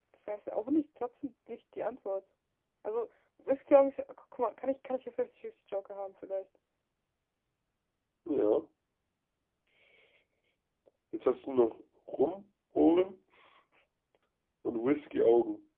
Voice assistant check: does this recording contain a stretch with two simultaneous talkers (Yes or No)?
No